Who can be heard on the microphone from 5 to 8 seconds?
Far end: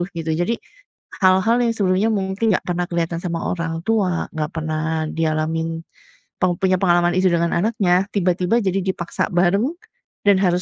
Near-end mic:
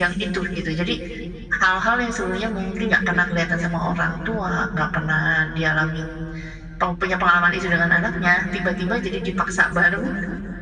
echo only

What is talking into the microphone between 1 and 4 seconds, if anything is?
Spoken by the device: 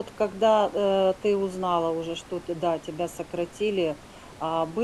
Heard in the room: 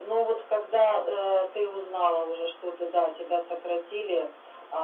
echo only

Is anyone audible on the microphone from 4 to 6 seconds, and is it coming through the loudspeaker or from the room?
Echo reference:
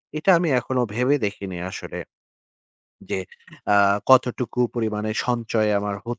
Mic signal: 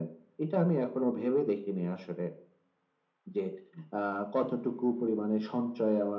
echo only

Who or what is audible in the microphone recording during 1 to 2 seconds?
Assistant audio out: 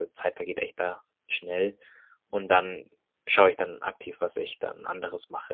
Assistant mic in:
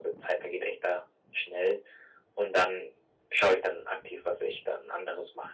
echo only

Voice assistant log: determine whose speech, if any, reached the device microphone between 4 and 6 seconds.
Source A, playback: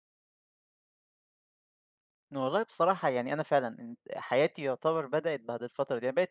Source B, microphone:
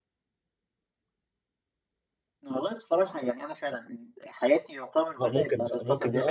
both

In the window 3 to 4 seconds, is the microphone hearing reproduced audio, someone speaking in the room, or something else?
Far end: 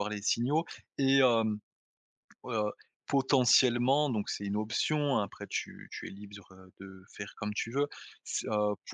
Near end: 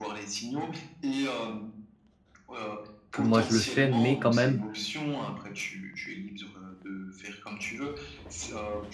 both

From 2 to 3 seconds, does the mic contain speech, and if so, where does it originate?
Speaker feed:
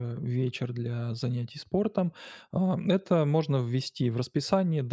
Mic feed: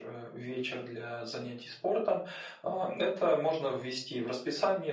echo only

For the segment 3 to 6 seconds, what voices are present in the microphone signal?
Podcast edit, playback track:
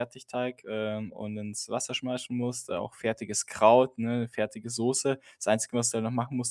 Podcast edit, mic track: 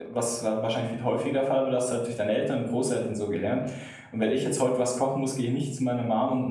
user only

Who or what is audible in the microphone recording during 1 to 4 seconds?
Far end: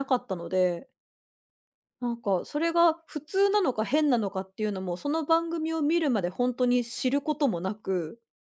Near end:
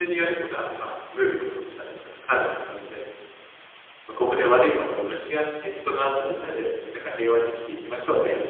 user only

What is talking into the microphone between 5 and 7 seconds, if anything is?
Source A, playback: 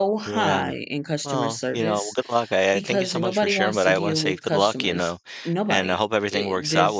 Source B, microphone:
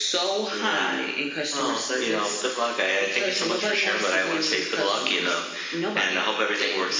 echo only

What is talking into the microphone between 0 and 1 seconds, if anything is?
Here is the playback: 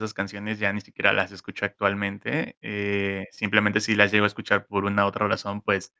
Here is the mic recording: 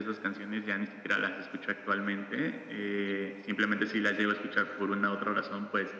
echo only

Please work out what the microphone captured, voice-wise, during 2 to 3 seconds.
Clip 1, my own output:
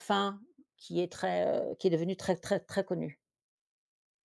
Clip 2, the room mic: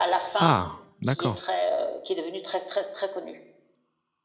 echo only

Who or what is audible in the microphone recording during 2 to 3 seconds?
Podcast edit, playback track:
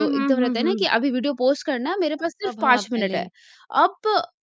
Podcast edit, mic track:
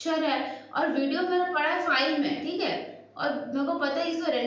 user only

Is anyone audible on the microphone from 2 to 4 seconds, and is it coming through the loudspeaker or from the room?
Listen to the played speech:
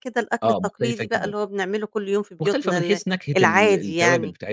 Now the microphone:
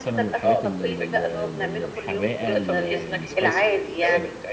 both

